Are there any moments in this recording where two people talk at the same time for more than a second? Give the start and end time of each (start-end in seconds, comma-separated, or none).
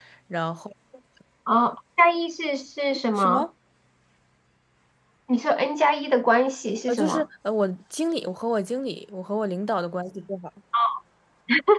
none